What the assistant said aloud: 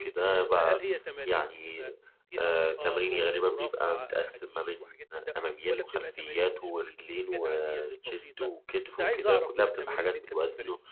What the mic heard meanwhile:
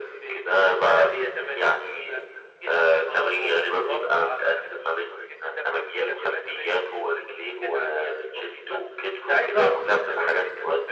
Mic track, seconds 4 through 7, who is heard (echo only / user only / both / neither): echo only